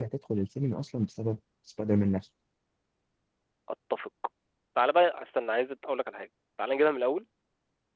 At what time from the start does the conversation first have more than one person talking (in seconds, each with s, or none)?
none